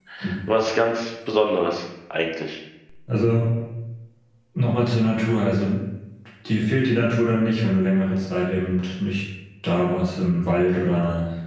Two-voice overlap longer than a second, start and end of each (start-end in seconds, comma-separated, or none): none